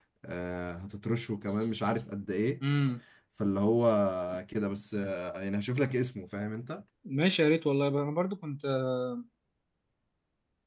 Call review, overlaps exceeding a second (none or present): none